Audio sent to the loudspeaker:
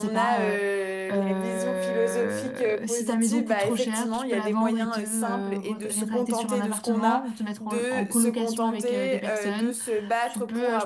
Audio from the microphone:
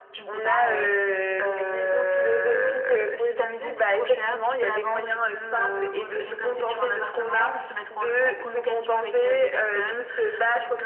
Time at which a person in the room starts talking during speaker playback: none

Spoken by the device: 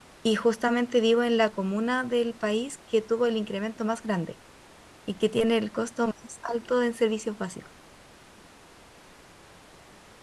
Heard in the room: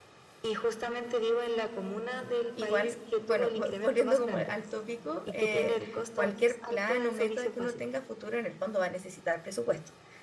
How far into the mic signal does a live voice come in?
2.5 s

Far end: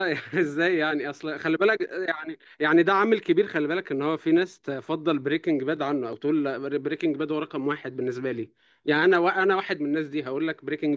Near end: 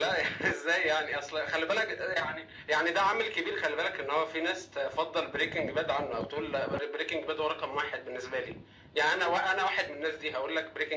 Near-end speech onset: none

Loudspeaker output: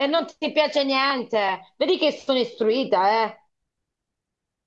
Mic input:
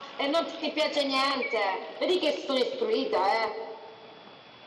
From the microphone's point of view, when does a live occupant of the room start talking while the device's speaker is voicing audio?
none

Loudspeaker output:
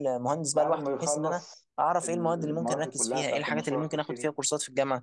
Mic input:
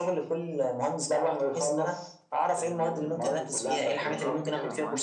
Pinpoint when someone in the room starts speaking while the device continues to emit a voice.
4.0 s

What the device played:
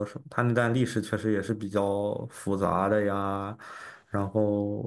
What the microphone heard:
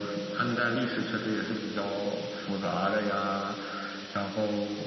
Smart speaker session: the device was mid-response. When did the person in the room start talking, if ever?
none

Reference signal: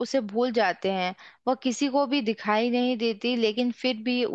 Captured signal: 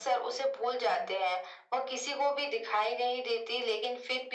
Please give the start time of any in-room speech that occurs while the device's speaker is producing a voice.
none

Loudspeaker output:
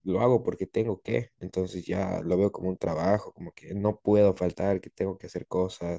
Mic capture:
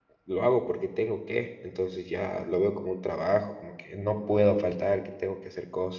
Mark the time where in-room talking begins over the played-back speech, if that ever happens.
none

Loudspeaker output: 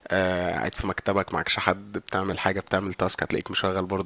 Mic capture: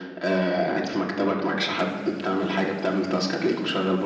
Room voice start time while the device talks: none

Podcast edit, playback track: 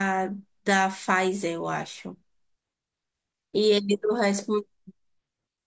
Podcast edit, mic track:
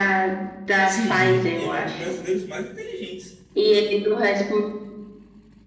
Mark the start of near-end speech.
0.8 s

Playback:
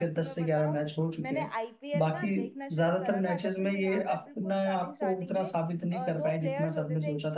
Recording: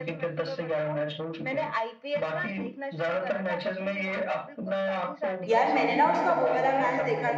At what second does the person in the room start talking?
5.5 s

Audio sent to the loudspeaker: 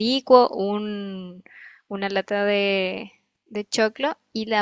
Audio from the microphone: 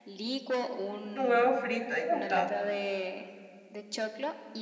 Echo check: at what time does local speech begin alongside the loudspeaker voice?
1.1 s

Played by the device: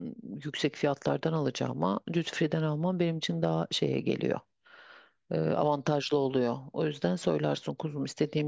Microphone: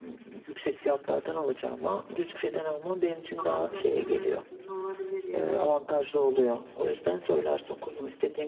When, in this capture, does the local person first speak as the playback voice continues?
3.4 s

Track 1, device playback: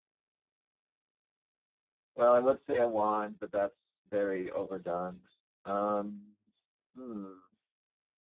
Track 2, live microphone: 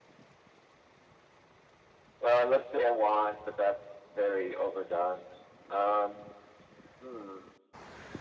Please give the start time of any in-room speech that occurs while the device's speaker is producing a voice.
none

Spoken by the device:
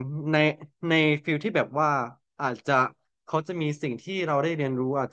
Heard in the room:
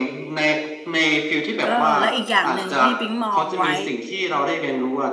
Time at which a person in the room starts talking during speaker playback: 1.6 s

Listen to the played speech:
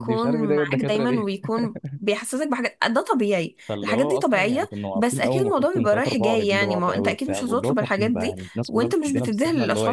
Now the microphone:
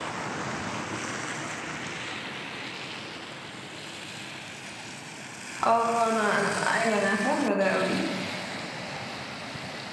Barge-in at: 5.6 s

